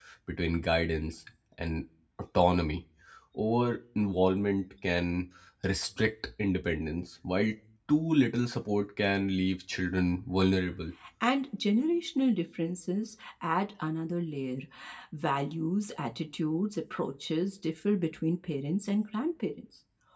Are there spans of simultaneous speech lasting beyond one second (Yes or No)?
No